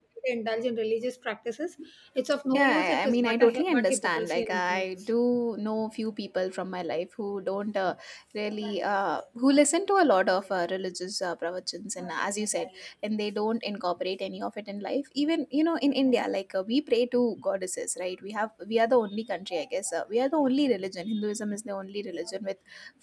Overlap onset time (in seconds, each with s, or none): 2.6 s